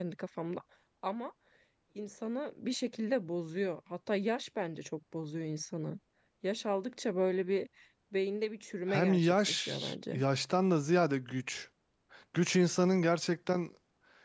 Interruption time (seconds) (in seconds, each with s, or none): 8.9 s